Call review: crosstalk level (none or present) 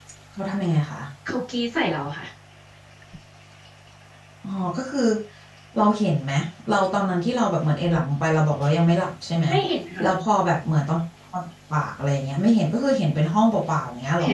none